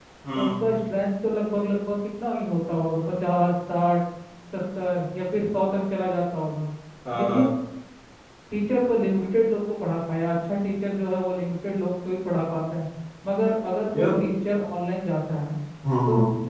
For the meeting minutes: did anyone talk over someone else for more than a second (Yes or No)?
No